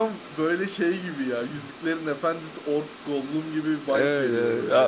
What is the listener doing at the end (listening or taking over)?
taking over